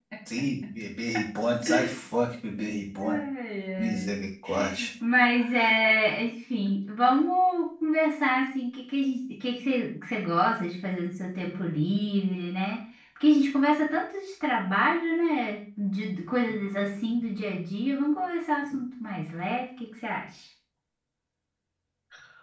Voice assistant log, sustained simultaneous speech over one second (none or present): none